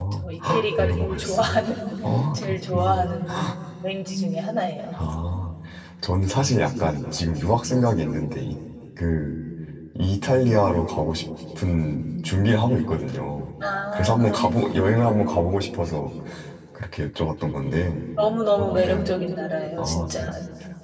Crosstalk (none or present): present